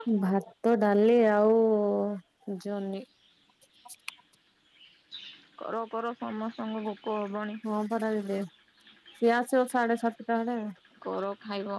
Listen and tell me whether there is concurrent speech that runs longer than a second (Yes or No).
No